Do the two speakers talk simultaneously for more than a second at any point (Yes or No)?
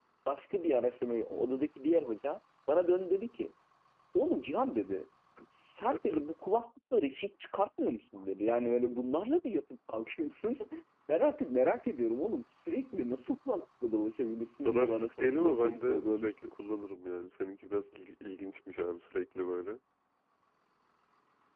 Yes